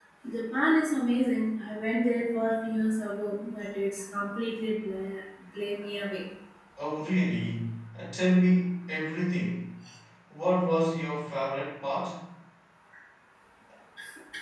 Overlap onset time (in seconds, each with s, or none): none